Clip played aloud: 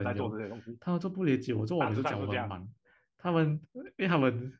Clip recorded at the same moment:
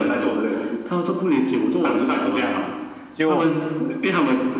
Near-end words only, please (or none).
就